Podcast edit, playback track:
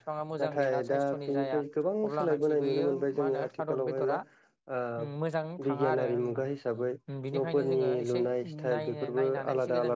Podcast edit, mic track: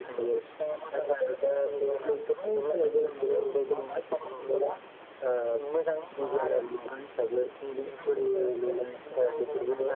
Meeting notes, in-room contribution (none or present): none